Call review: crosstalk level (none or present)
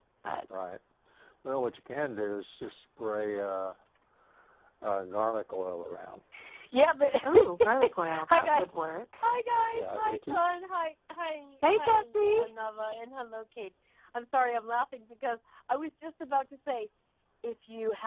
present